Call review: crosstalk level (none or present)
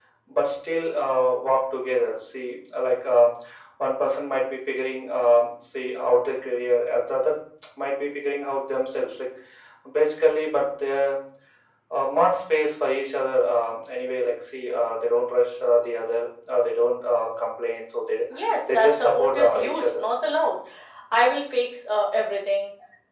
present